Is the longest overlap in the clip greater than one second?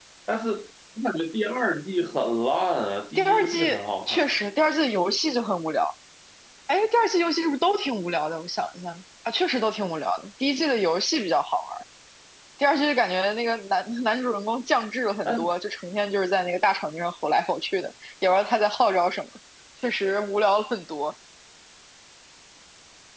Yes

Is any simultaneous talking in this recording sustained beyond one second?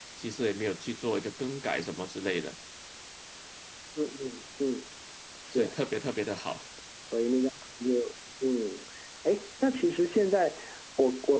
No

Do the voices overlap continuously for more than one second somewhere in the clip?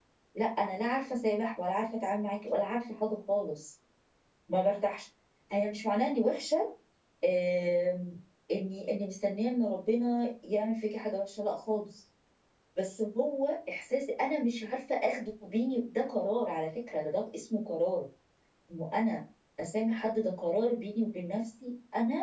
No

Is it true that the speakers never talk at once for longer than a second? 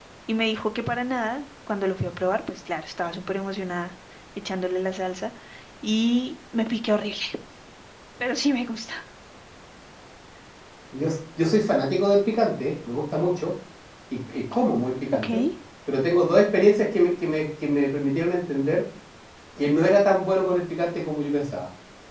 Yes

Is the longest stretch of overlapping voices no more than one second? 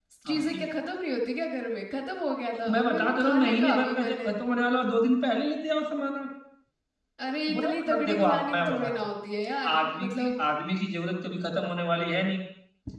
No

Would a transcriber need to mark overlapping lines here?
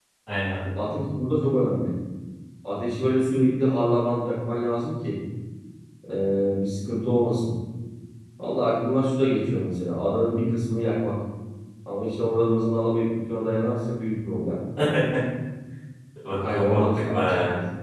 Yes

